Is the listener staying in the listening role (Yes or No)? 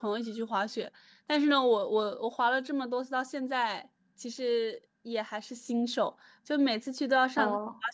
Yes